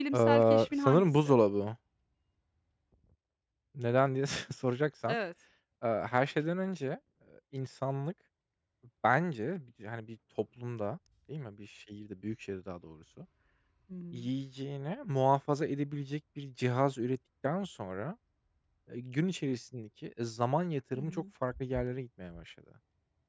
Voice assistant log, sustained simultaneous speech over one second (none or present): present